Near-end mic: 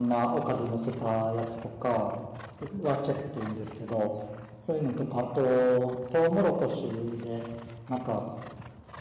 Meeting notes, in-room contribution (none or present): present